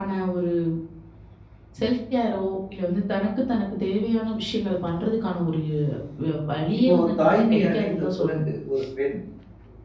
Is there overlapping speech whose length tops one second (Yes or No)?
Yes